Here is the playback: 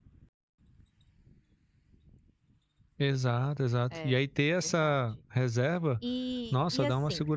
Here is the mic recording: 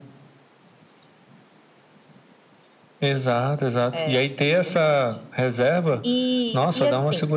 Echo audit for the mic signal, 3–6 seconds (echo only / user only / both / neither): echo only